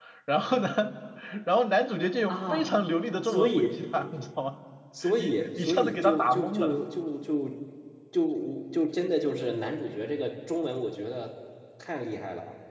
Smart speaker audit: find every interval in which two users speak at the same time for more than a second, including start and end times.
5.2-6.8

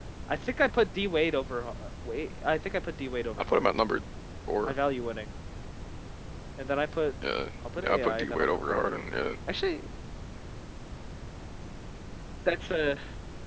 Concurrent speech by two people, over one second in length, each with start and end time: 7.8-9.0

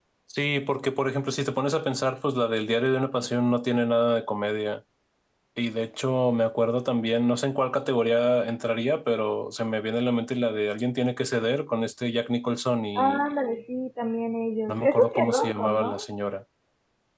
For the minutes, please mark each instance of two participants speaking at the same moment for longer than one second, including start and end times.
14.7-16.1

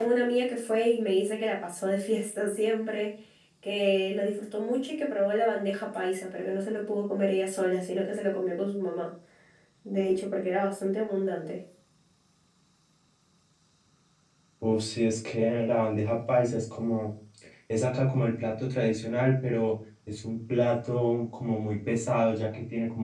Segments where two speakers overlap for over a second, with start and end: none

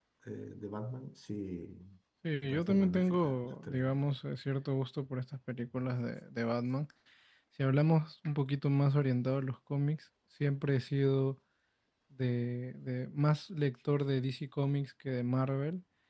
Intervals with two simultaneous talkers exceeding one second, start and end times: 2.4-4.0

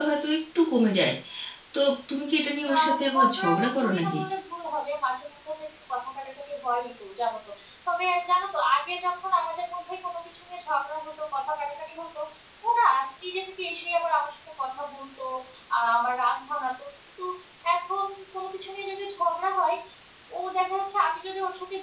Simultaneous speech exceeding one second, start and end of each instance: 2.7-4.2

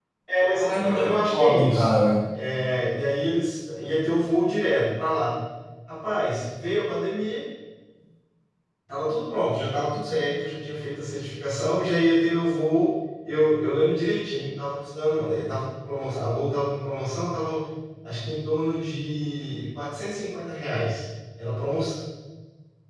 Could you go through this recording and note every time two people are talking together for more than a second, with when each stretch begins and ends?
0.6-1.9

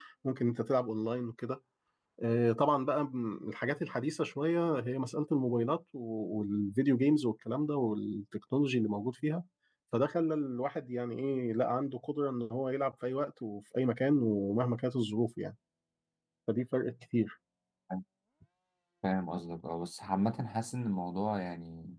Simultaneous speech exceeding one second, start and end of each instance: none

